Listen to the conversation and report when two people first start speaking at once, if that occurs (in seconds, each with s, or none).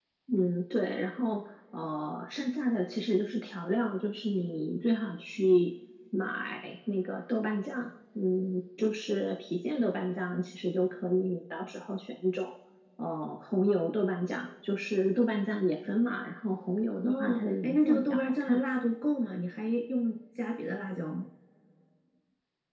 17.0 s